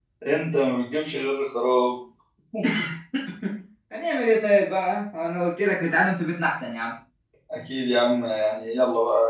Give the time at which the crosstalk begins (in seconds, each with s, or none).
none